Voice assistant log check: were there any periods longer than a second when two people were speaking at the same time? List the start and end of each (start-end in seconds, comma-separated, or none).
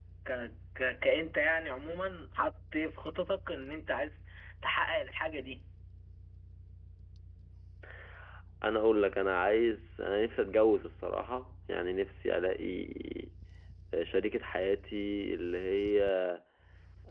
none